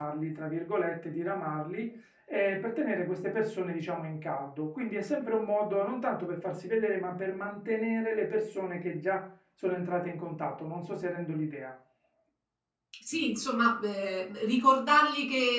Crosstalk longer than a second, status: none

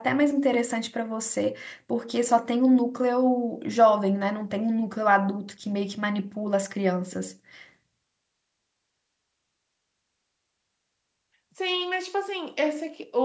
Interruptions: none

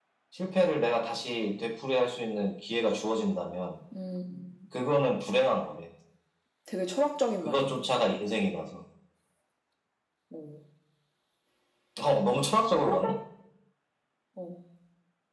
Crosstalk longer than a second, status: none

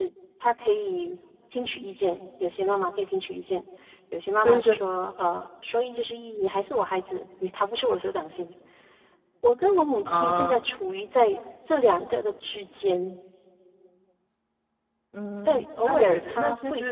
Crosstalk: present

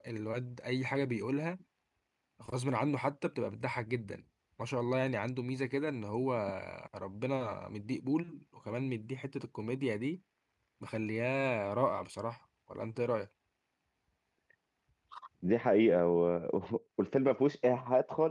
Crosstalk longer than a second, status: none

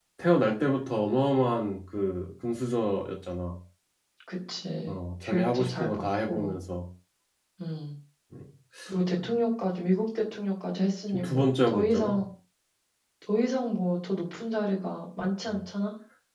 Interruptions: present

